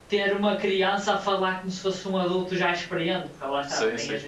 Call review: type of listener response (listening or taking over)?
taking over